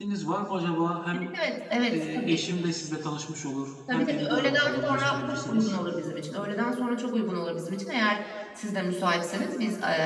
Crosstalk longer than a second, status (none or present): present